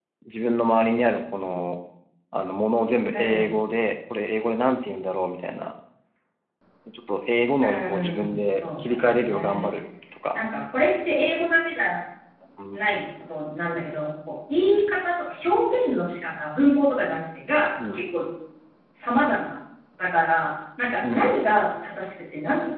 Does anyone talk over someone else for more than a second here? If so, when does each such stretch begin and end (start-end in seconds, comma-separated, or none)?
7.6-9.7